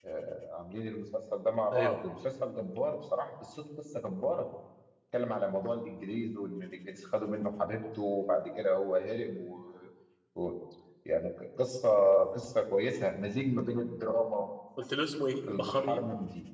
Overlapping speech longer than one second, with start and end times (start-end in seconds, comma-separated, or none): none